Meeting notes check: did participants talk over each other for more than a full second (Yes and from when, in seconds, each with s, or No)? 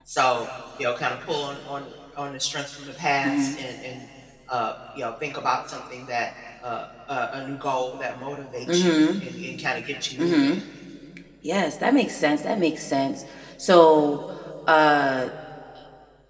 No